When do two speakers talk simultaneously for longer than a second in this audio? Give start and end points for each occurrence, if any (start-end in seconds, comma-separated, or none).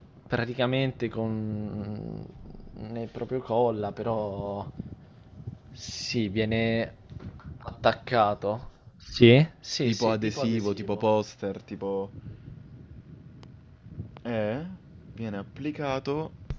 9.8-11.0